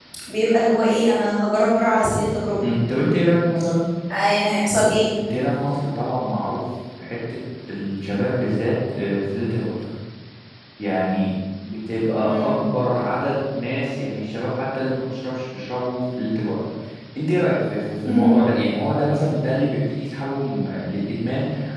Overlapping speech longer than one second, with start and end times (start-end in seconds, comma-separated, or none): none